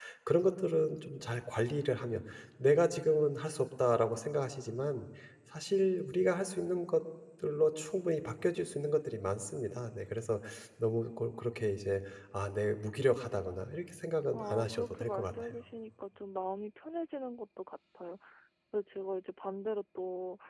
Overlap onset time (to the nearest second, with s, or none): 14 s